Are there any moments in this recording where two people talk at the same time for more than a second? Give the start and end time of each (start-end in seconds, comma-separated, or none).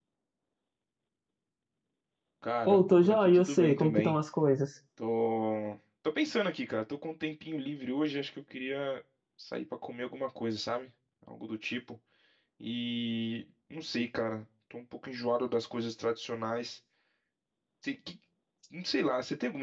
2.7-4.2